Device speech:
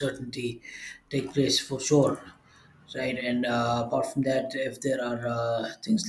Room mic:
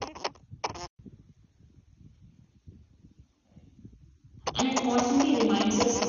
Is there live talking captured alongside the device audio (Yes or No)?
Yes